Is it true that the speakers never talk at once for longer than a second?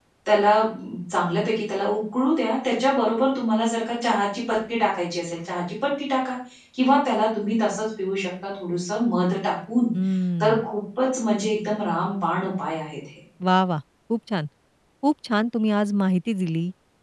Yes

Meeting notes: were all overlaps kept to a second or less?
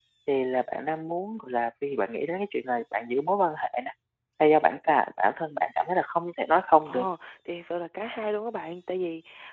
Yes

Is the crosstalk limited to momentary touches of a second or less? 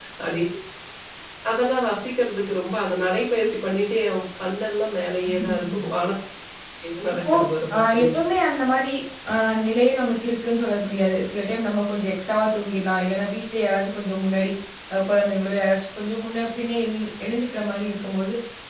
Yes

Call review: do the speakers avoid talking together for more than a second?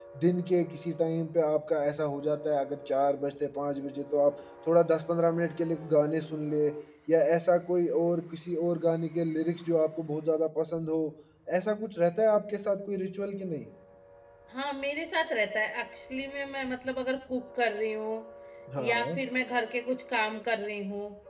Yes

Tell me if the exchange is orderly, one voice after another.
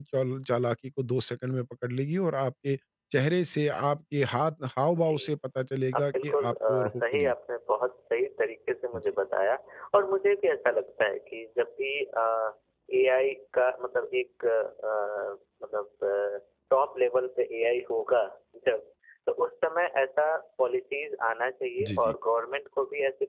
No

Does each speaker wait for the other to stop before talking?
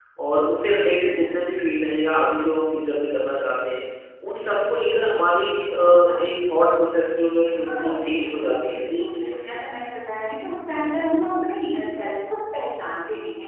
No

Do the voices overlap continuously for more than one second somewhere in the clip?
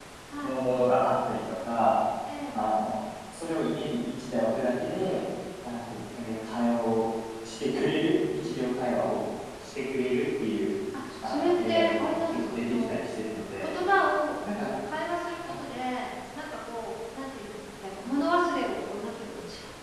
Yes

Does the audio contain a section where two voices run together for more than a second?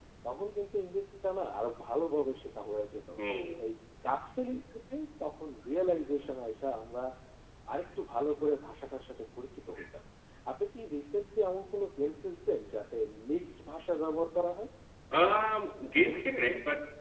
No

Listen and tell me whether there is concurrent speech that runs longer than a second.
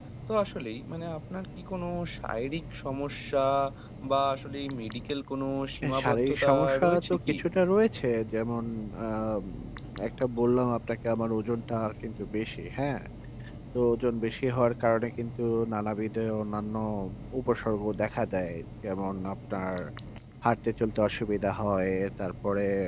Yes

